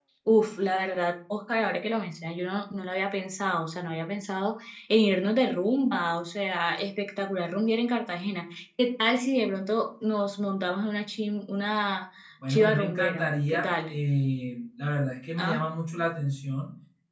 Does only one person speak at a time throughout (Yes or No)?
No